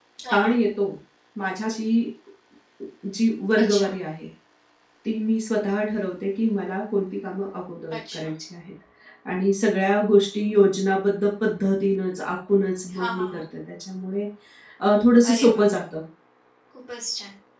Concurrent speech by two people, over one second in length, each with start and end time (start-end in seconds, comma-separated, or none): none